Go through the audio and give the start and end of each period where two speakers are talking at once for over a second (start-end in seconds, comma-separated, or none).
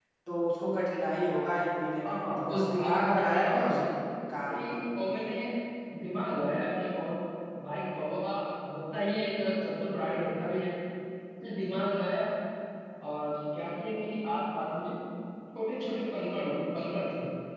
2.1-3.8